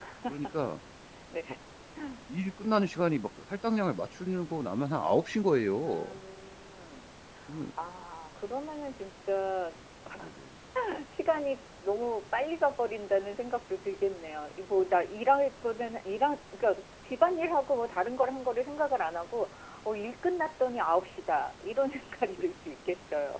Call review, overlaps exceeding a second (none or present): none